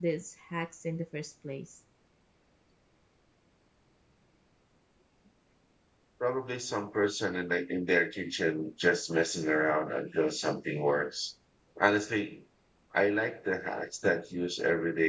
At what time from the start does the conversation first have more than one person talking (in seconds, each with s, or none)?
none